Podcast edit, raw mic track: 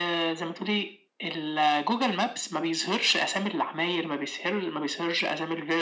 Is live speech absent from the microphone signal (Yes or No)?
Yes